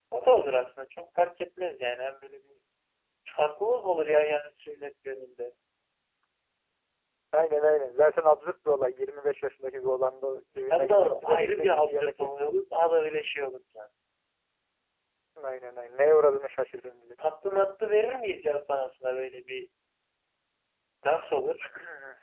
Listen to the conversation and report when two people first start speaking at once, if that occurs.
10.7 s

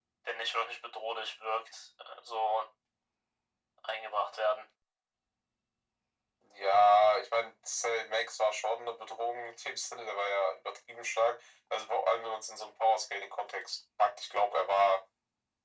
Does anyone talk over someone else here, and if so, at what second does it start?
none

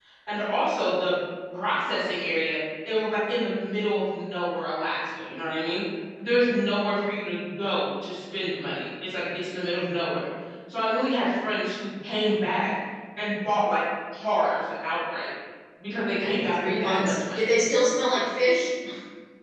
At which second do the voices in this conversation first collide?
16.2 s

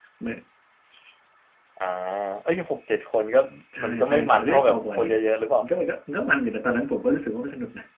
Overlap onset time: 3.8 s

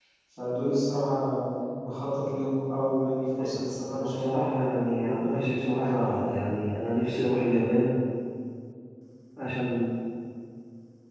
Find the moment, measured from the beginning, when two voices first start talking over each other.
3.3 s

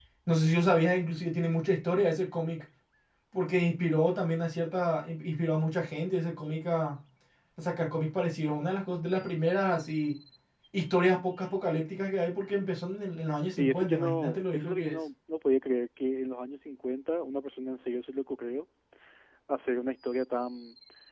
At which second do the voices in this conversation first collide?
13.4 s

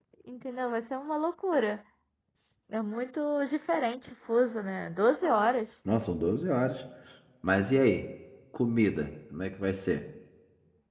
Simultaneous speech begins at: none

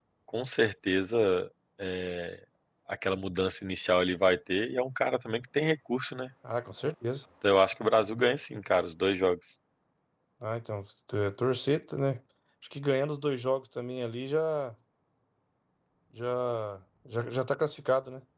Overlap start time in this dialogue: none

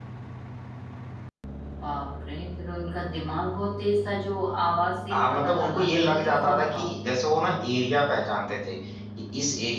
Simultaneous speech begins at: 5.1 s

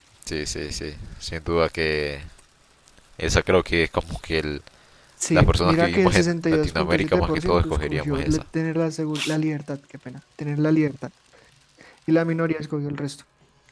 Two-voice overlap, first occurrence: 5.3 s

